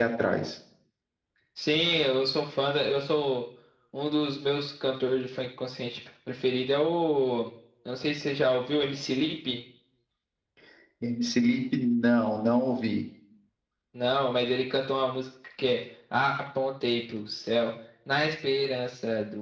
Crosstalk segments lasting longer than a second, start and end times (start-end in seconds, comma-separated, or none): none